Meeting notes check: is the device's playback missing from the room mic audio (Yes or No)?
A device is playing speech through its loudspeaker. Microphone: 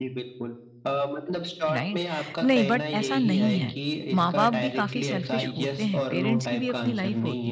No